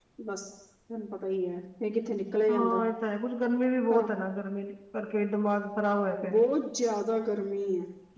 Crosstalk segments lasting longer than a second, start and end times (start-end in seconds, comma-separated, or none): none